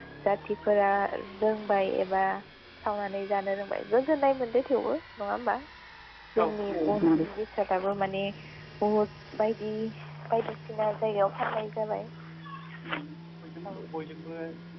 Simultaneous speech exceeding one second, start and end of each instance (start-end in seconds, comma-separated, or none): none